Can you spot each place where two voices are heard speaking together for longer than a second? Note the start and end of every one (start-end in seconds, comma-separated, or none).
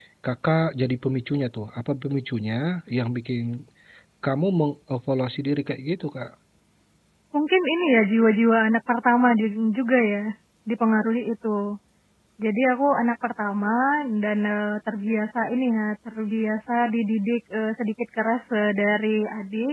none